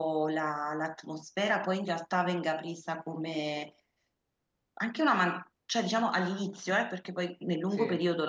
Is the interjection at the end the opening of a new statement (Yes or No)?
No